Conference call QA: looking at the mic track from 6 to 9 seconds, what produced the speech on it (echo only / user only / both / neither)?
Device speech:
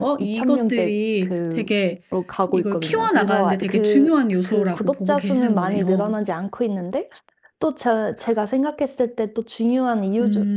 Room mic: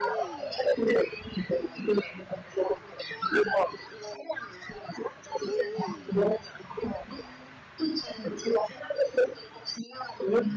echo only